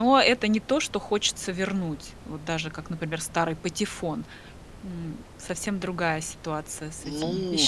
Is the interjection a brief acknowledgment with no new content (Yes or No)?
No